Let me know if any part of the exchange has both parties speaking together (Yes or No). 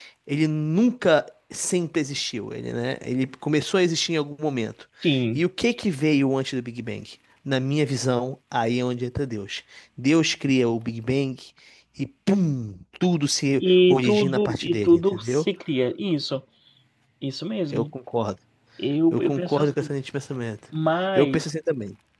Yes